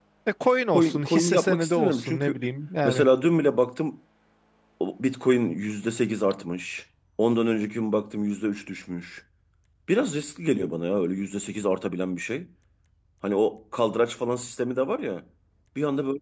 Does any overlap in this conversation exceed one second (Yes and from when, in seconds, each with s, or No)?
Yes, from 0.7 s